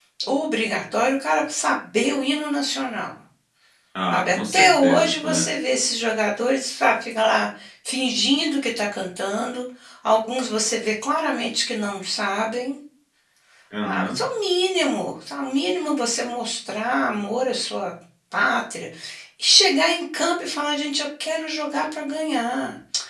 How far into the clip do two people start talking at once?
4.1 s

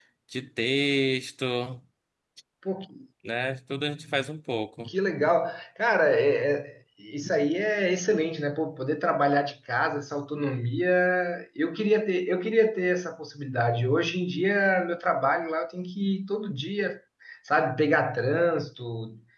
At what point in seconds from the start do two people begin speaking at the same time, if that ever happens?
none

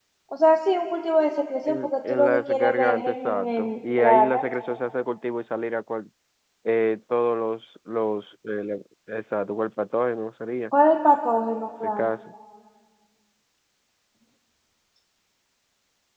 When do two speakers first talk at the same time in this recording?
1.7 s

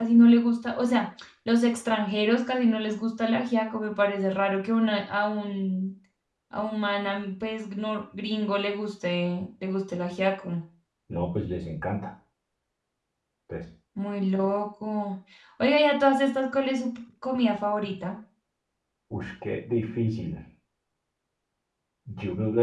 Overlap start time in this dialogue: none

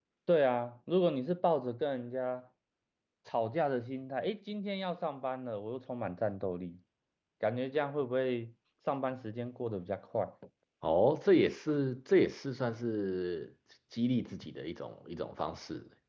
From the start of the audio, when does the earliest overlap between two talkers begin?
none

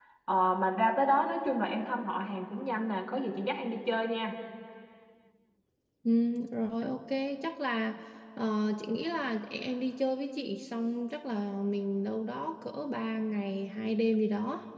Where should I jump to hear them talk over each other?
none

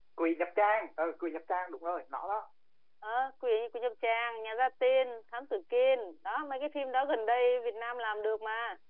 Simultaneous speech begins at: none

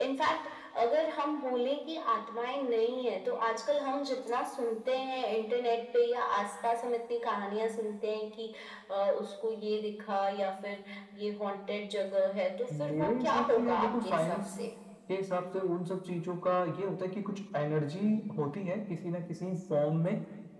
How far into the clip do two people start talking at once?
12.7 s

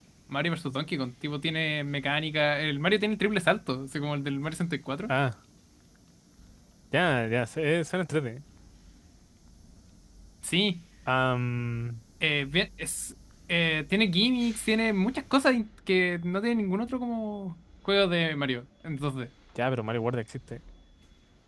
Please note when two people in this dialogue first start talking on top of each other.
none

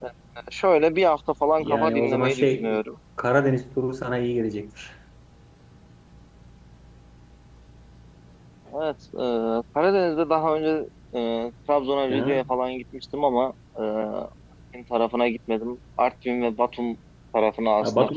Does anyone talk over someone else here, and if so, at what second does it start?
1.6 s

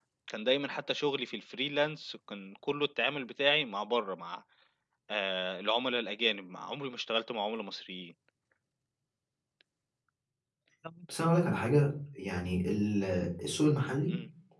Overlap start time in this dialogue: none

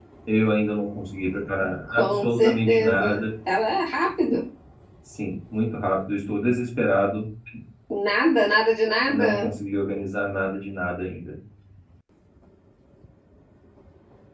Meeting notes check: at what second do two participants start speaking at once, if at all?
1.9 s

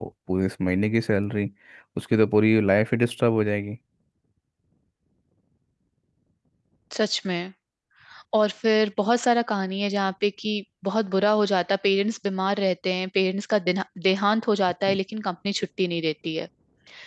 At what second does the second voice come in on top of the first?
none

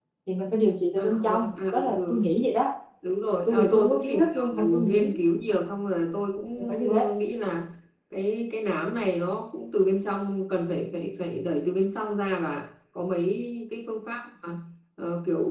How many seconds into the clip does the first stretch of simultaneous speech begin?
1.0 s

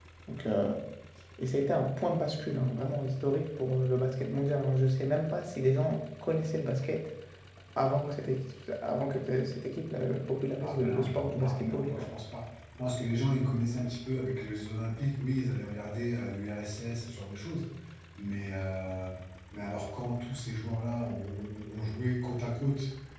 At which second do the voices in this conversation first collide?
10.6 s

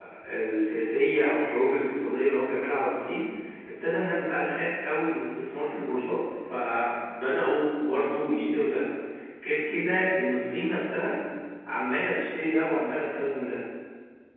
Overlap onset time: none

